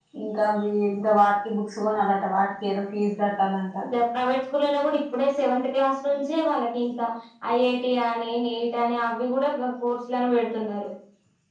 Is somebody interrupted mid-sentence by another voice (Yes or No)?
No